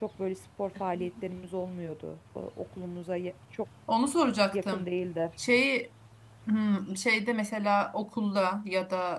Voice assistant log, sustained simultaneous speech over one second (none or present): none